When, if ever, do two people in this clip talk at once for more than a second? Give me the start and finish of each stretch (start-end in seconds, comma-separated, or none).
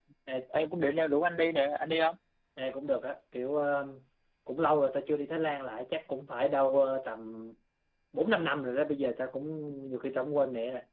none